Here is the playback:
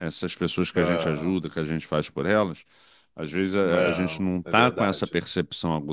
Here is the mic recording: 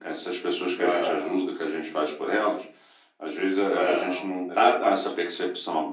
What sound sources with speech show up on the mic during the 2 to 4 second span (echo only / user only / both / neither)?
echo only